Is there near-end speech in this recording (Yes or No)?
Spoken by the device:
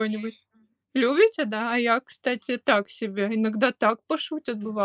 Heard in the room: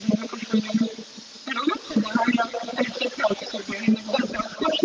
No